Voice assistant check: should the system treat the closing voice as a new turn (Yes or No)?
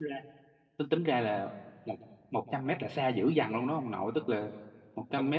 No